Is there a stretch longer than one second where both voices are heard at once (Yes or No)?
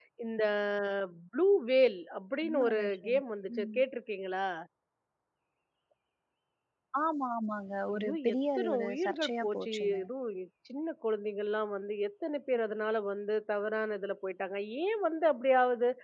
Yes